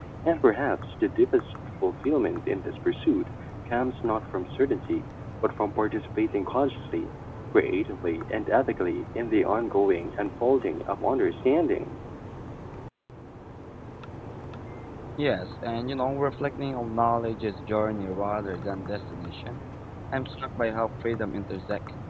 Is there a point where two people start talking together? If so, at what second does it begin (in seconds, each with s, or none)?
none